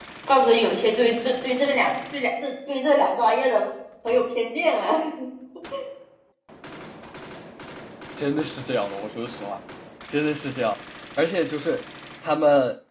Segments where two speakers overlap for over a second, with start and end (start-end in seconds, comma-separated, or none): none